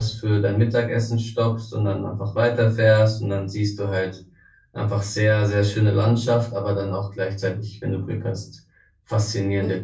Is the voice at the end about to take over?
No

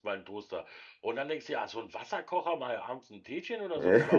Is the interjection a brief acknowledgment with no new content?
Yes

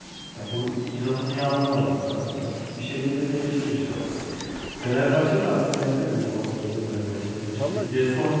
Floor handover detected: No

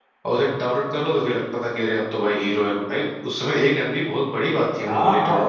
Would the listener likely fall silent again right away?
No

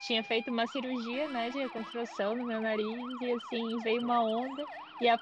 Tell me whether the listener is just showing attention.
Yes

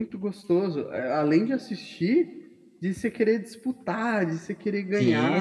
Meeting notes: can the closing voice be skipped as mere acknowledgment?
No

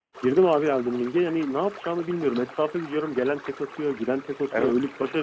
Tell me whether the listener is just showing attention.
Yes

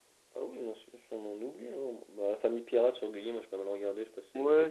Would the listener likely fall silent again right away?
No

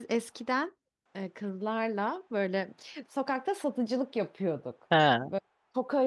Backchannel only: Yes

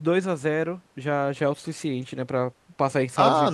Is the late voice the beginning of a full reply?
Yes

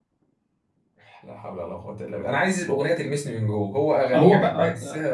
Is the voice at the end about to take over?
Yes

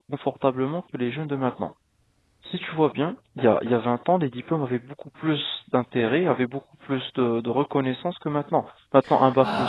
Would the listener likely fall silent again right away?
No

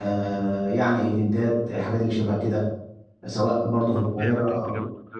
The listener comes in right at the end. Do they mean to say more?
Yes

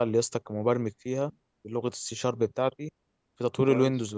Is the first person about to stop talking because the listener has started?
No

